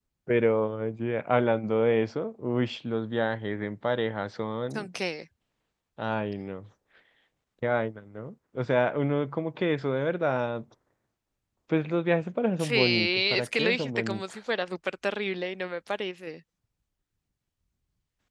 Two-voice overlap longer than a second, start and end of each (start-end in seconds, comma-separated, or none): 12.6-14.2